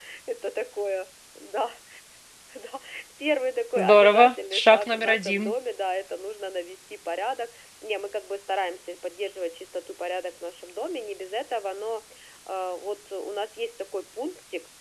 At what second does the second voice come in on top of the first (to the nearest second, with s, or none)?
4 s